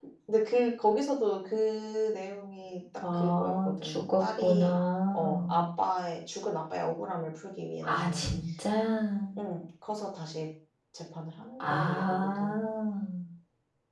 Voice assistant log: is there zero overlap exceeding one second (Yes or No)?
No